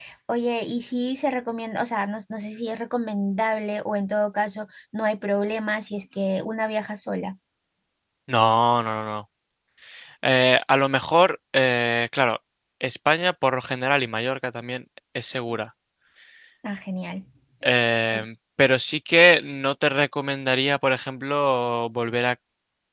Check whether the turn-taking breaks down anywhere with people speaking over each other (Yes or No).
No